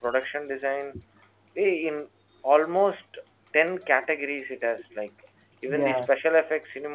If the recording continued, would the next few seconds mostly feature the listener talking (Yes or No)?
No